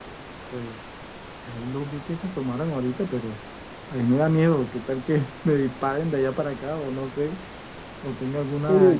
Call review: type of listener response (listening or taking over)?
listening